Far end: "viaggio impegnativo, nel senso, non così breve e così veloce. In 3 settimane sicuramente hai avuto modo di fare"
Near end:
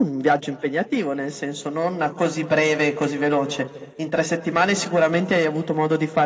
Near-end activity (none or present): none